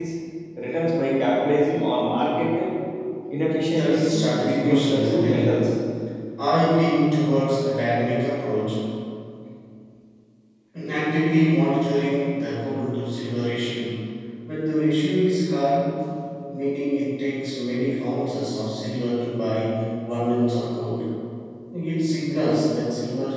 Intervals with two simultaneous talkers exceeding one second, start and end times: 3.7-5.4

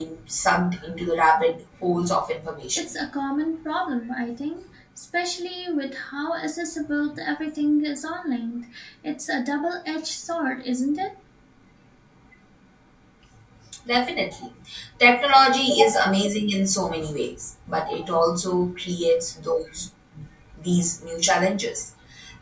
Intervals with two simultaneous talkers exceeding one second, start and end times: none

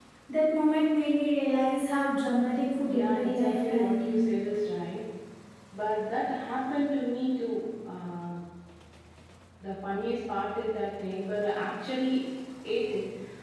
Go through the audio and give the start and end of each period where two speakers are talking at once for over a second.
2.9-4.2

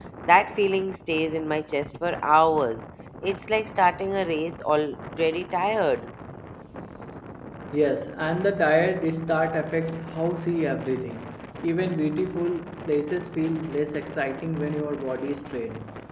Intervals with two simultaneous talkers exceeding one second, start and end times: none

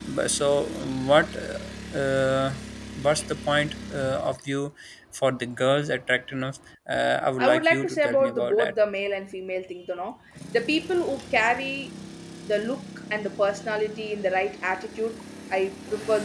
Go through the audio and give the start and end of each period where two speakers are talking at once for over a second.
7.4-8.7

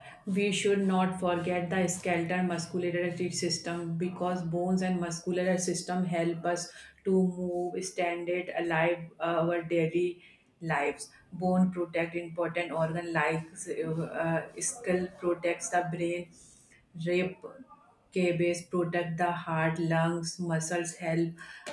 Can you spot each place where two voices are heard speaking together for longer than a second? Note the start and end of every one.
none

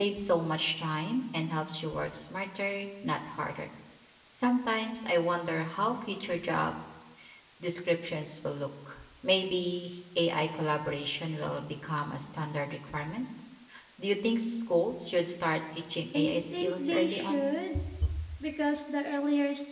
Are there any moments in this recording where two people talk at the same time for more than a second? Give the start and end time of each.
16.1-17.5

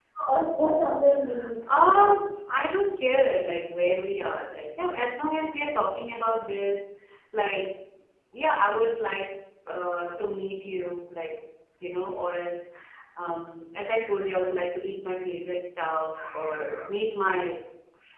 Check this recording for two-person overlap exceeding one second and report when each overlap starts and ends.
none

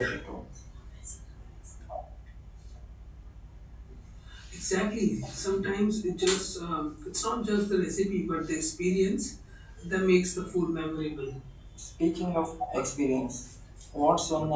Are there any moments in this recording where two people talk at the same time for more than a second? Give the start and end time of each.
none

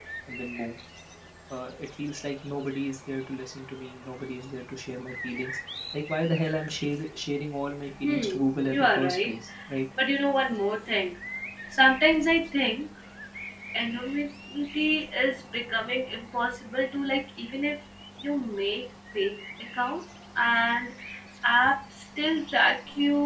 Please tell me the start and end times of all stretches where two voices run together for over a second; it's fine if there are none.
8.0-9.4

